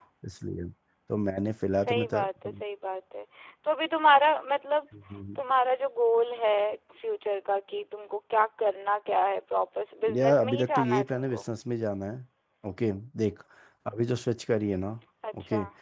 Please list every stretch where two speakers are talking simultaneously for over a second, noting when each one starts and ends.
10.2-11.5

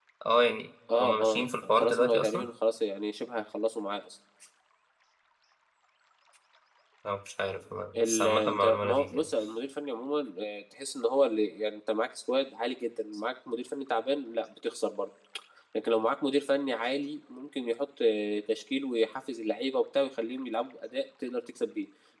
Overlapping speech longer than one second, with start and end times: 1.0-2.4, 8.0-9.3

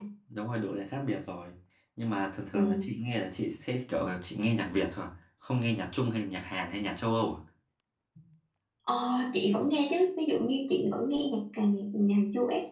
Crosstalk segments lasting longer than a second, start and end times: none

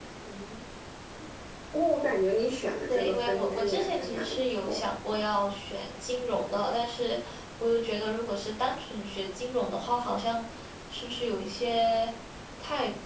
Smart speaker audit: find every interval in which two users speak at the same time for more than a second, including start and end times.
2.9-4.9

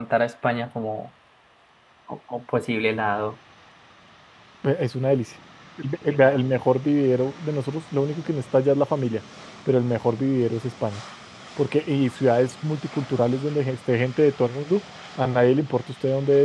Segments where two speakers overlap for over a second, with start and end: none

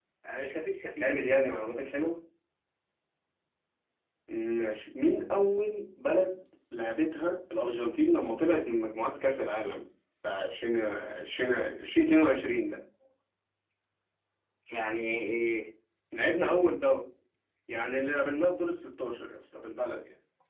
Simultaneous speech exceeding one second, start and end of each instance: none

